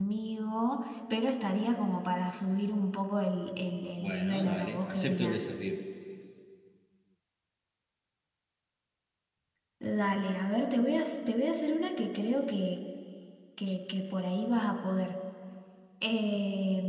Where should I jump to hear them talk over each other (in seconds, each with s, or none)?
4.0 s